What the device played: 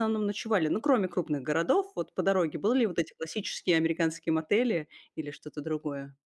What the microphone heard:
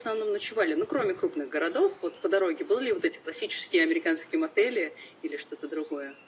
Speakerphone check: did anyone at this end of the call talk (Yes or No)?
No